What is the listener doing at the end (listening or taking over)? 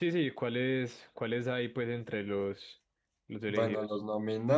taking over